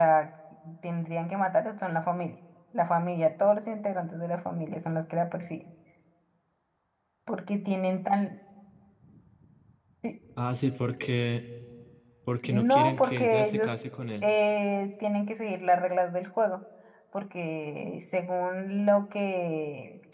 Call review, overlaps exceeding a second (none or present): present